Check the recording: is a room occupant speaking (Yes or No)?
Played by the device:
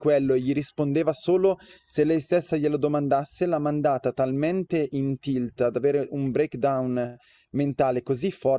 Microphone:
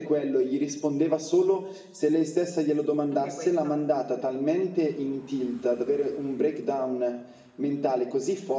Yes